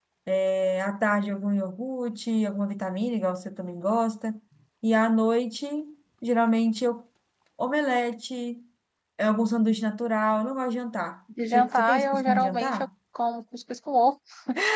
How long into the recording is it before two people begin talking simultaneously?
11.5 s

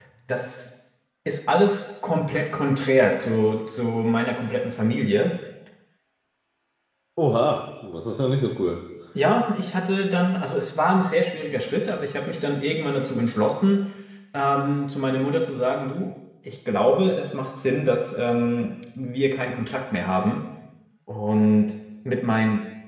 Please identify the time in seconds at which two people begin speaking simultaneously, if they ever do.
none

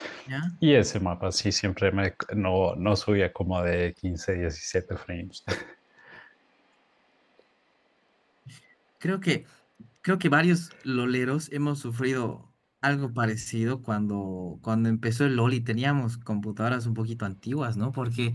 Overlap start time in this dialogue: none

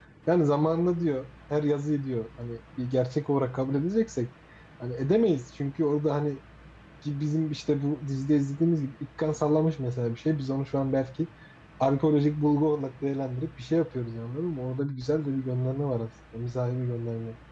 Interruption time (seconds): none

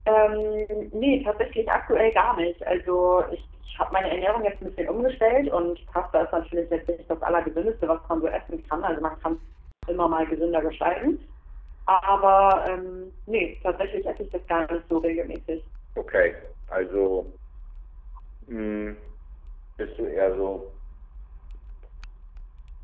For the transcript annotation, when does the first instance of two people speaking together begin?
none

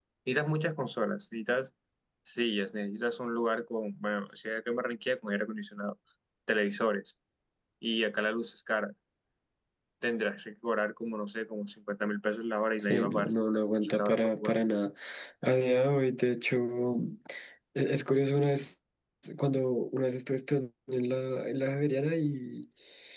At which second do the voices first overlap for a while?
12.8 s

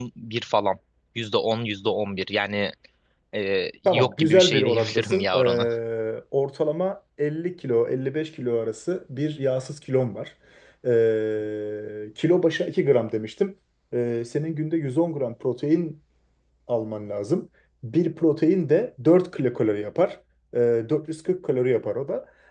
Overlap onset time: 3.9 s

